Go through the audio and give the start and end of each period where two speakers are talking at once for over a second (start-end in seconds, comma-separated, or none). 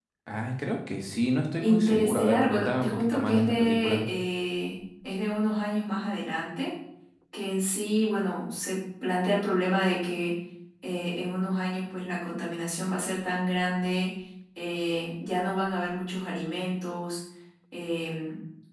1.6-4.0